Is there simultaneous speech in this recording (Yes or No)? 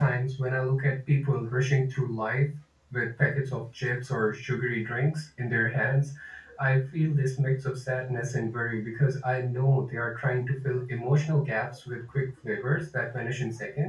No